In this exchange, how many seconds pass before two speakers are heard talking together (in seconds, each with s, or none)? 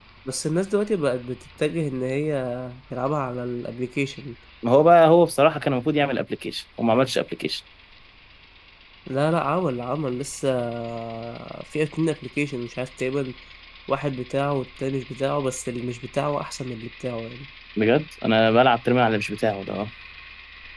none